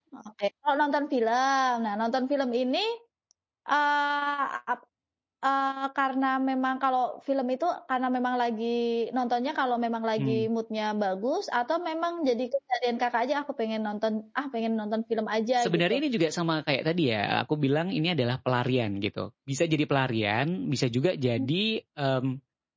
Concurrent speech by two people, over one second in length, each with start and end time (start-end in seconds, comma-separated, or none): none